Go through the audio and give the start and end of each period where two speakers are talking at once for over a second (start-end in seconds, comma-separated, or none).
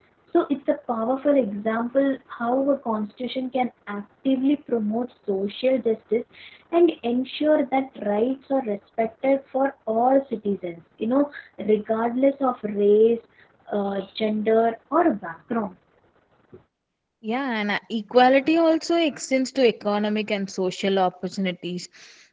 none